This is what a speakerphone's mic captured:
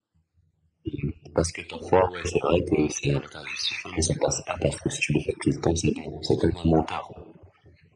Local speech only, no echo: none

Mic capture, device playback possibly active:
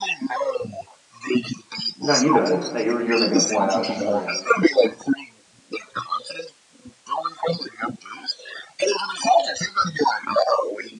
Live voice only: No, you go ahead. No, you were you were making a point. I was just agreeing.

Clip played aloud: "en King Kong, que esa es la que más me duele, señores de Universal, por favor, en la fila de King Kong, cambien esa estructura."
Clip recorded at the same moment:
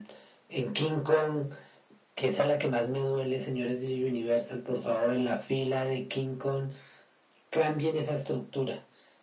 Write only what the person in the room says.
none

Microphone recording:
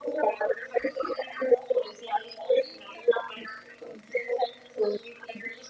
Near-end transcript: none

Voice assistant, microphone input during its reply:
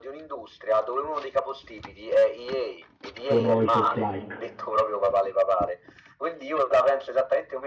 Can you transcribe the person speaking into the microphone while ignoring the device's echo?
sono i Souls-like.

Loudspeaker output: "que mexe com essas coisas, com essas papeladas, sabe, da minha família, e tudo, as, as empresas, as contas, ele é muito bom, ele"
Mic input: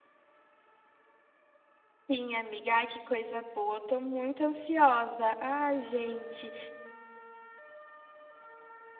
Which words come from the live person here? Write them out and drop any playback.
Sim, amiga, ai que coisa boa, tô muito ansiosa. Ai, gente.

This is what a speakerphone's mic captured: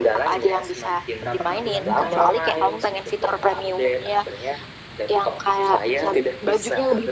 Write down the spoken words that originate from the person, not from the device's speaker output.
Berapa Kak? Ulangi Kak?

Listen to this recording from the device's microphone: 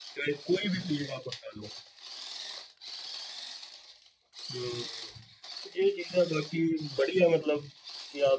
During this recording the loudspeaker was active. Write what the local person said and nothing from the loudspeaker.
none

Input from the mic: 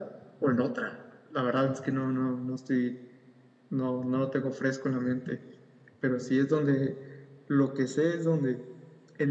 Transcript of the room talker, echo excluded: none

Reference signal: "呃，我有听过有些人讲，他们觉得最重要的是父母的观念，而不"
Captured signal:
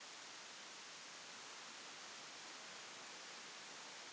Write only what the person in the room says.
none

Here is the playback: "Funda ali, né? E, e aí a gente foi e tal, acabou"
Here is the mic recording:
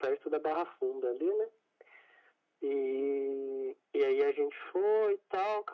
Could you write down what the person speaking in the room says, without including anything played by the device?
none

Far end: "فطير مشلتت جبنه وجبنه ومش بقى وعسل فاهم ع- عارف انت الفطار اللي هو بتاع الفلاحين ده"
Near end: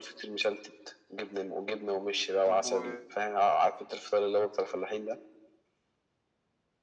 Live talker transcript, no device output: طب و

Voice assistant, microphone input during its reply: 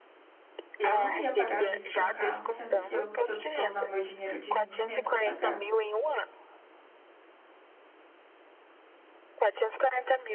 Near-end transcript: Eu não ia pagar à vista um carro, sendo que eu tô, tô usando meu dinheiro de rendimento para pagar.

